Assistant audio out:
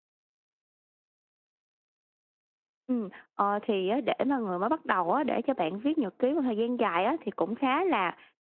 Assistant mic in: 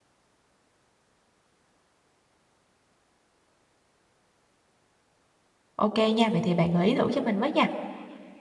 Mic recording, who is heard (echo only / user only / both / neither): user only